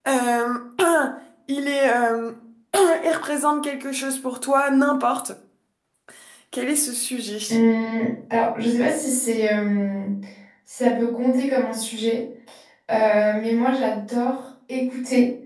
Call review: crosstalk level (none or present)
none